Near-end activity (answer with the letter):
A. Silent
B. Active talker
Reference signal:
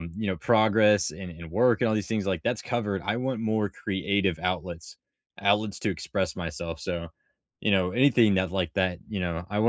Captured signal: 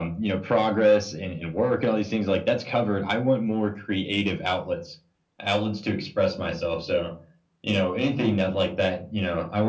A